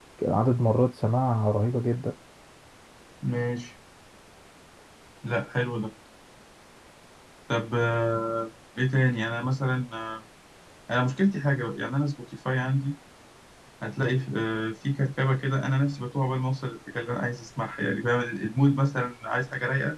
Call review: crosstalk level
none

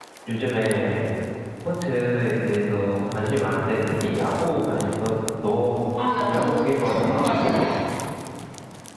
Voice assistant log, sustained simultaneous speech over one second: present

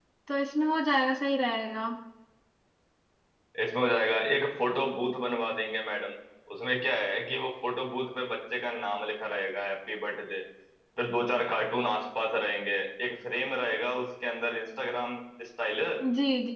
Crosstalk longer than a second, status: none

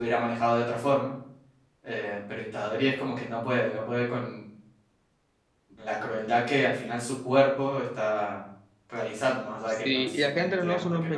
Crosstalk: present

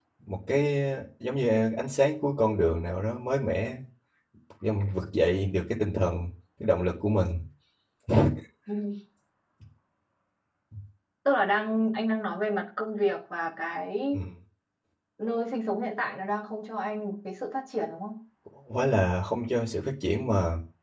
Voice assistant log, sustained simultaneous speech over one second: none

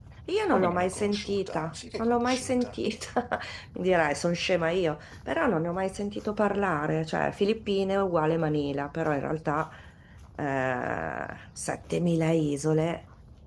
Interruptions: present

